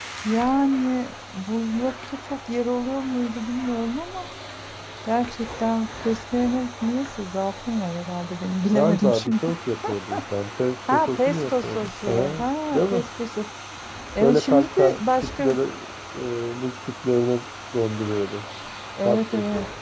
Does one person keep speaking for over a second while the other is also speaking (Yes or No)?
Yes